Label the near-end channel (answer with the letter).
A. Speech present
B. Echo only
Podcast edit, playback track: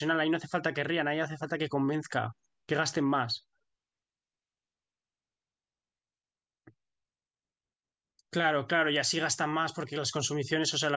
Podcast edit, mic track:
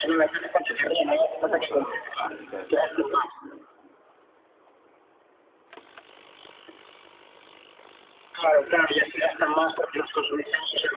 A